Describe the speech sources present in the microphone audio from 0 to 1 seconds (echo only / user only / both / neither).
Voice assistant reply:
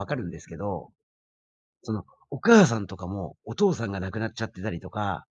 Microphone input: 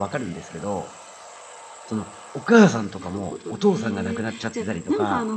echo only